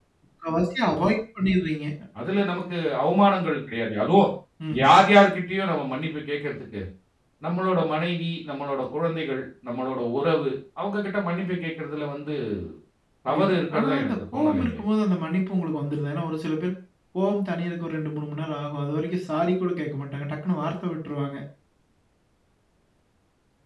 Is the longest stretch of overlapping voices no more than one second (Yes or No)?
No